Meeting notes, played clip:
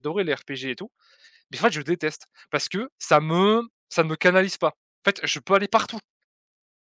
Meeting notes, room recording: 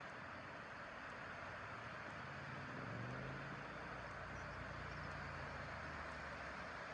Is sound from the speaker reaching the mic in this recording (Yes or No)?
No